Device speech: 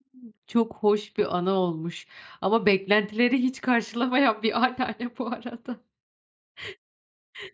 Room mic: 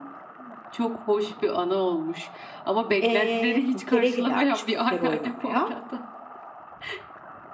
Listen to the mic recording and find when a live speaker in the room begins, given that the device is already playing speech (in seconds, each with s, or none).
3.0 s